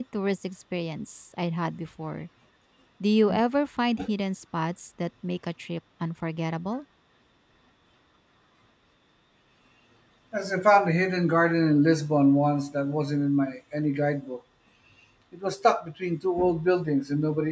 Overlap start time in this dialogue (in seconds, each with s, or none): none